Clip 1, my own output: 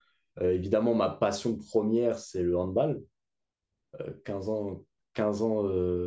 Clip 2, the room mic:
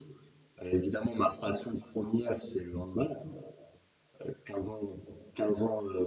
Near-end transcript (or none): none